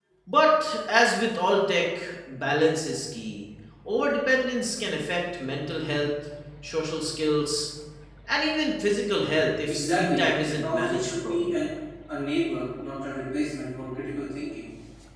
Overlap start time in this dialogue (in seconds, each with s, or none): 9.7 s